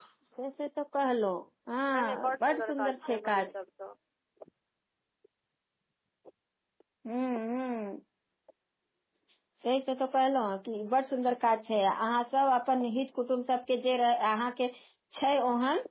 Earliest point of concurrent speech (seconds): 1.9 s

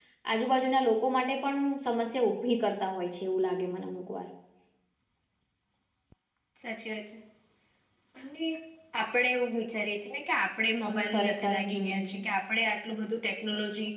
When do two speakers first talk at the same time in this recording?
10.9 s

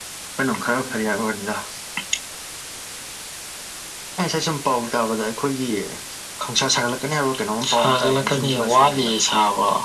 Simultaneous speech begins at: 7.6 s

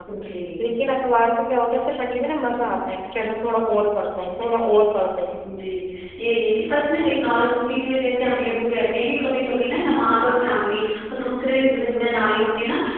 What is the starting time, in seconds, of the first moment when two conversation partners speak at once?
none

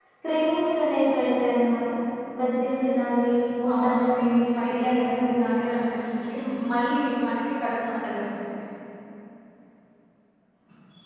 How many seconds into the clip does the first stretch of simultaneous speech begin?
3.6 s

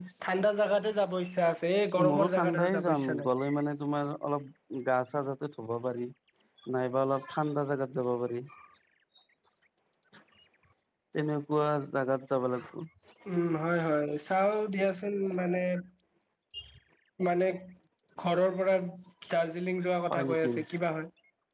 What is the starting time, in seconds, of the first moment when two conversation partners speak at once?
2.0 s

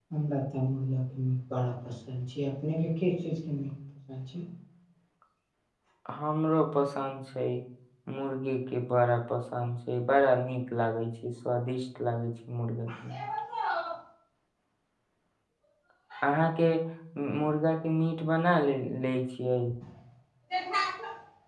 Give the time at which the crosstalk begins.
none

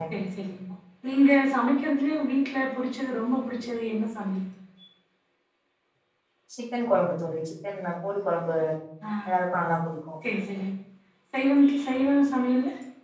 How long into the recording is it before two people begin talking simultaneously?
none

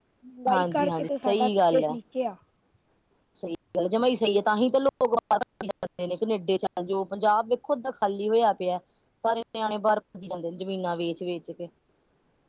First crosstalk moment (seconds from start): 0.5 s

